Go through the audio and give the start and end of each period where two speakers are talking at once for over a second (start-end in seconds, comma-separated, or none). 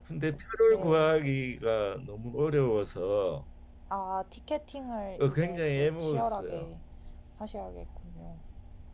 5.2-6.7